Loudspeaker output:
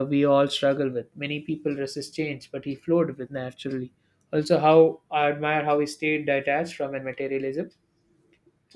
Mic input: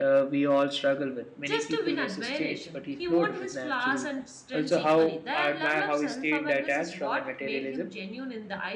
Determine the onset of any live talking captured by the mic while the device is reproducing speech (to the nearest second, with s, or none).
1 s